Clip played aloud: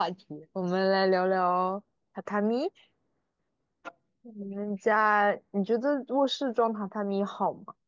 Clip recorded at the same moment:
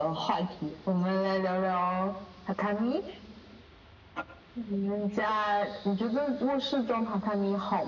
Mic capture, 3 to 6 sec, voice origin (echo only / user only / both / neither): echo only